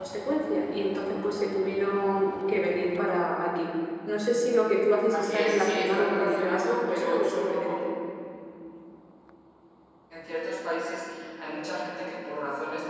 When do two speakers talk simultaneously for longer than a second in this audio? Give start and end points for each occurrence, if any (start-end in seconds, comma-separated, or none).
5.1-7.8